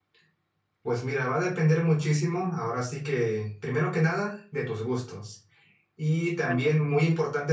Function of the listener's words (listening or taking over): listening